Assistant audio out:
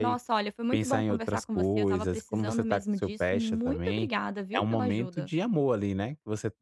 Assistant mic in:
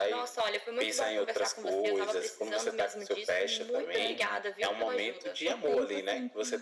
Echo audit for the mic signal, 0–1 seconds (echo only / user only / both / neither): echo only